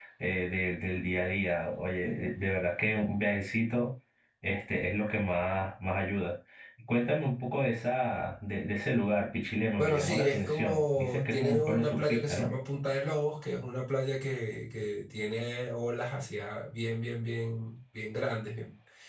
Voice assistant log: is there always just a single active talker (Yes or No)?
No